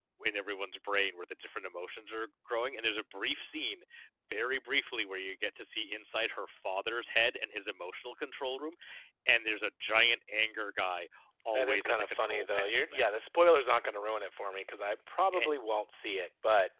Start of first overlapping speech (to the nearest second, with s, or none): 12 s